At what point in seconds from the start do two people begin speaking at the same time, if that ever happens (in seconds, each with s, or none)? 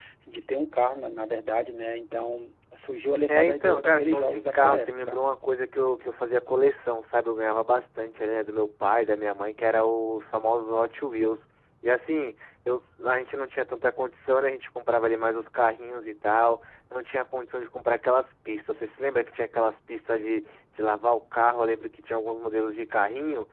3.3 s